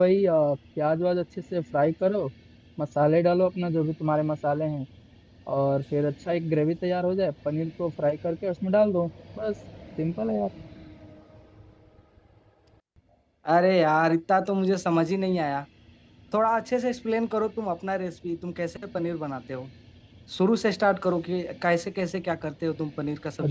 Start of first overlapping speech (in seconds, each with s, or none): none